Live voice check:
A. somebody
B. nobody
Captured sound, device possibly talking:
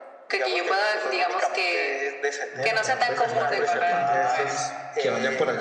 A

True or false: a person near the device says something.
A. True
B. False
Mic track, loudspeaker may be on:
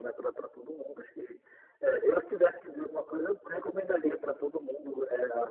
B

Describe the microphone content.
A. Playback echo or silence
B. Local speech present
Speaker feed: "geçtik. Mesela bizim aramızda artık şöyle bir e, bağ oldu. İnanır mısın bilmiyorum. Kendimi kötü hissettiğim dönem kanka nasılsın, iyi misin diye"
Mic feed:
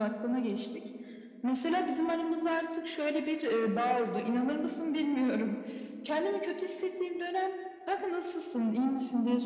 A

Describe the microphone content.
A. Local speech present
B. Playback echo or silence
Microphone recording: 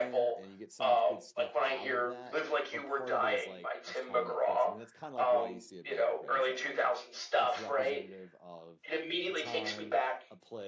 A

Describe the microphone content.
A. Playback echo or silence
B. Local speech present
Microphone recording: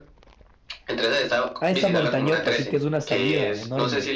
B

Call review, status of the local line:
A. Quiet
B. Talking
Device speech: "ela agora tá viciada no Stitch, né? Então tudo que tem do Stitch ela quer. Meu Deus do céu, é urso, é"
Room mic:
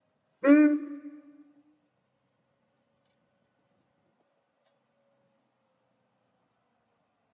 B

